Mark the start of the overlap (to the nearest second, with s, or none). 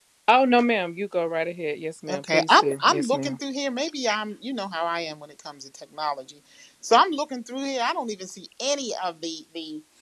2 s